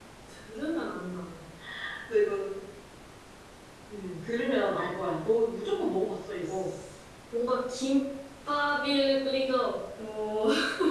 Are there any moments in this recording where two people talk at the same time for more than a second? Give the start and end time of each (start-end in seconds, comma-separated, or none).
none